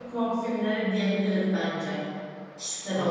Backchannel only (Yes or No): No